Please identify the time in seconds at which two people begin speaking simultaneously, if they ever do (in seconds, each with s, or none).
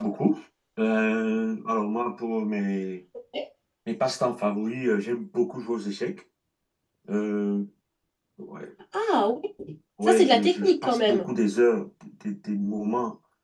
10.0 s